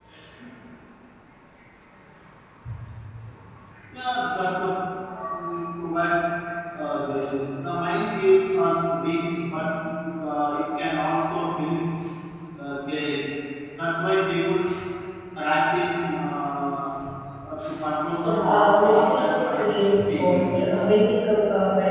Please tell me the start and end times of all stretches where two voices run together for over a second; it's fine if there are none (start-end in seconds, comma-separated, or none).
18.2-19.6